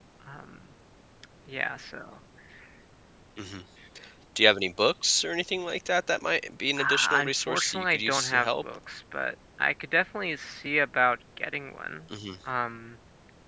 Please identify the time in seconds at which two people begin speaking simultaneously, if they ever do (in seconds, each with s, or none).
6.8 s